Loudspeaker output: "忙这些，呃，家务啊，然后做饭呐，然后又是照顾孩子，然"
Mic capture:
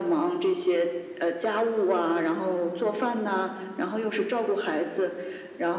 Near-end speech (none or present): none